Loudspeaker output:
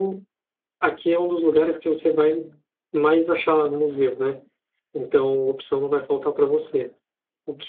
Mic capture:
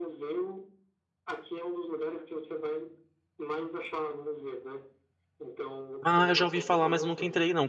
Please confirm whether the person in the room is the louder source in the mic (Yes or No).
Yes